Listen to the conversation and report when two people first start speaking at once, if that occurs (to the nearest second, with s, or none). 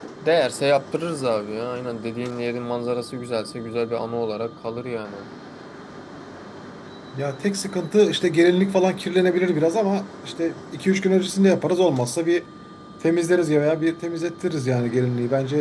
none